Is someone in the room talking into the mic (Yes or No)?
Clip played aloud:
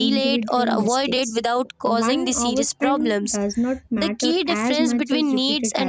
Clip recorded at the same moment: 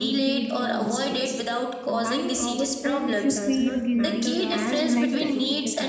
Yes